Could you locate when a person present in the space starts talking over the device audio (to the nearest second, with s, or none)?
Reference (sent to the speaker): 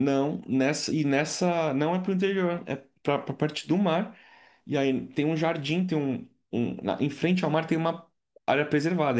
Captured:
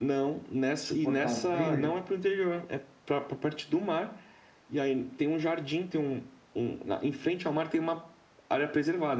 1 s